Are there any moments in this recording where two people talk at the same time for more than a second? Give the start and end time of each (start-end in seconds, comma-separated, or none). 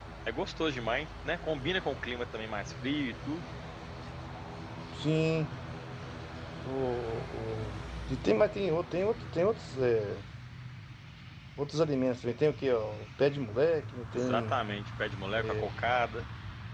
none